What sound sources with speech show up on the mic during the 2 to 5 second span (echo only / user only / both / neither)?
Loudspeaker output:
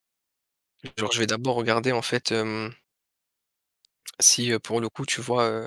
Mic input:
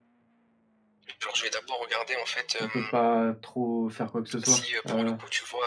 both